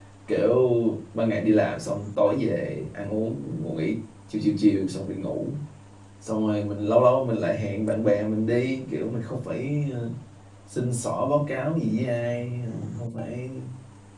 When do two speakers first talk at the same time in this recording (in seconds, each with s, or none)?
none